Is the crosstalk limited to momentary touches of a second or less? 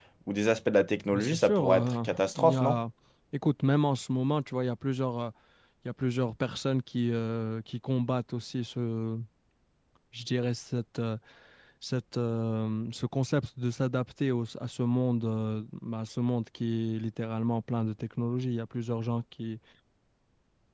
No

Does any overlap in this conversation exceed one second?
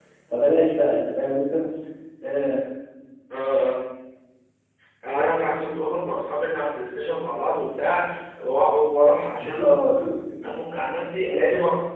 No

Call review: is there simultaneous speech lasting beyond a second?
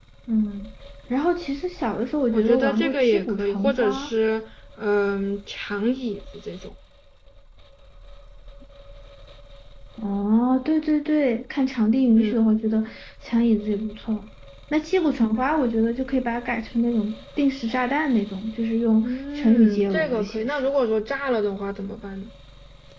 Yes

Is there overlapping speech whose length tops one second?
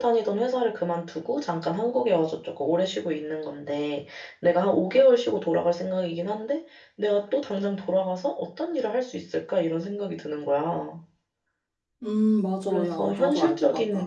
Yes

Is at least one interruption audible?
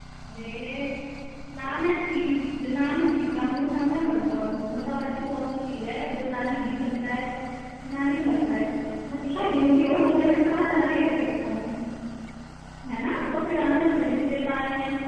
Yes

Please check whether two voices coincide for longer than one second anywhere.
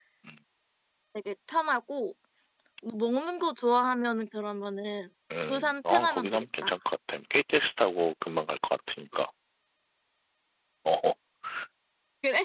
Yes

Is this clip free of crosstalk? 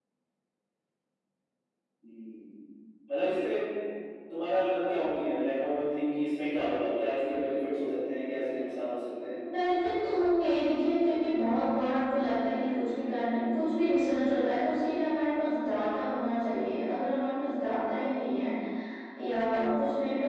Yes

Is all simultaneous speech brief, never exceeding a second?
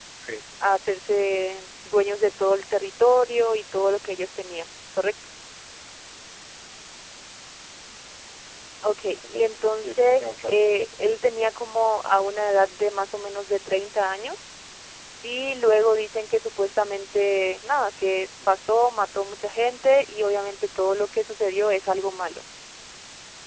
No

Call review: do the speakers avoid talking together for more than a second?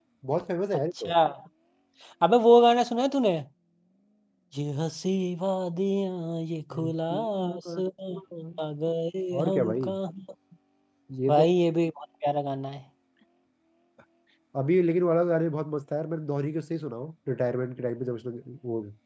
No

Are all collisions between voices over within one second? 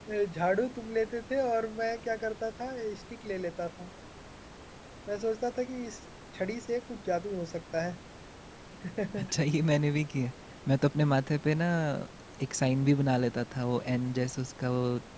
Yes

